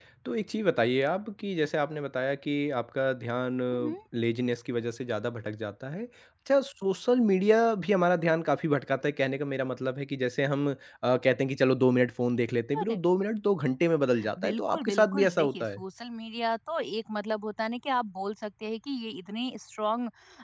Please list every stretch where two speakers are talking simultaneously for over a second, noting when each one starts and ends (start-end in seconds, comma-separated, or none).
14.4-15.8